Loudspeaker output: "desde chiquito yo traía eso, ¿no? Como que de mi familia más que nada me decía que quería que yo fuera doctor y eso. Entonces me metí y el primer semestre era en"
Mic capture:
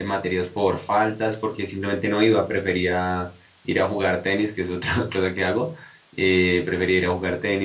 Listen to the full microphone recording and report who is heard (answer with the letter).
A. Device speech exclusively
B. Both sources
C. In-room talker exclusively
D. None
C